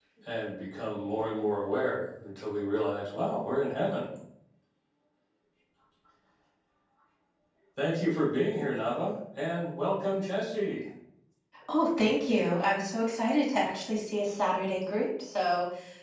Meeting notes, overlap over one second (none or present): none